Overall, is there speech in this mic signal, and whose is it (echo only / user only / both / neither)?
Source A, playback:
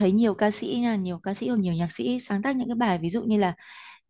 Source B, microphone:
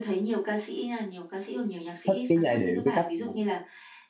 both